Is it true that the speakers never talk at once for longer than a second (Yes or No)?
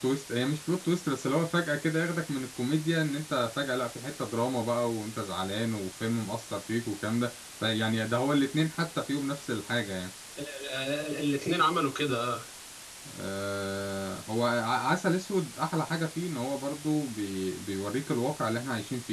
Yes